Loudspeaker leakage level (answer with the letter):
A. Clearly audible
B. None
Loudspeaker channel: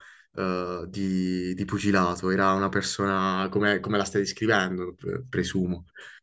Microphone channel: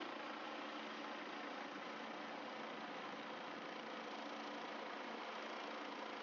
B